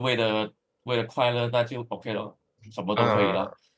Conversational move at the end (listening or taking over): taking over